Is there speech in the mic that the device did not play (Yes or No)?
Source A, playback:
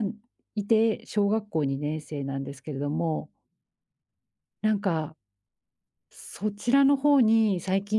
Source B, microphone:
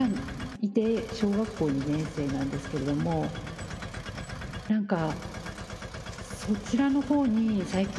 No